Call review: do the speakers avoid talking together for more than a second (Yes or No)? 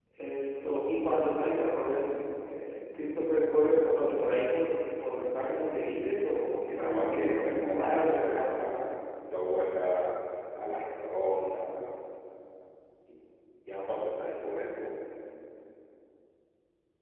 No